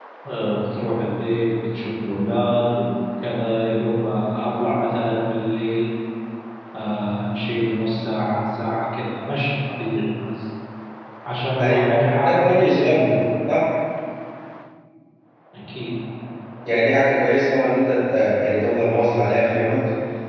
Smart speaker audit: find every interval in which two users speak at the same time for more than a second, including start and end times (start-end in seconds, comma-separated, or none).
11.6-13.0